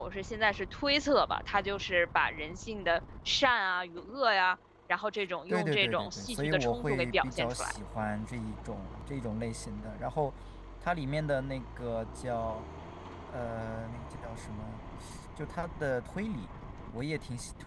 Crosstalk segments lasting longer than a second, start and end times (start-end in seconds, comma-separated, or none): 5.5-7.8